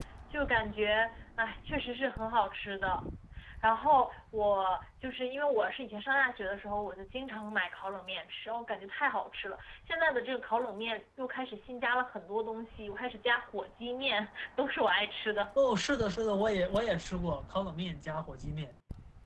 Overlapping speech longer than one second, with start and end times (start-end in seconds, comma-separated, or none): none